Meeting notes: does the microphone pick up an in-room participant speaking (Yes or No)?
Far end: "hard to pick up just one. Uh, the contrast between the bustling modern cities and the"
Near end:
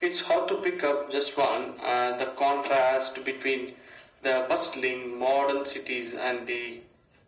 No